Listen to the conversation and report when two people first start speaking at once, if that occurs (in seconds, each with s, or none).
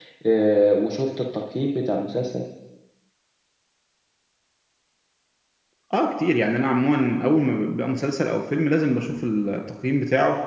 none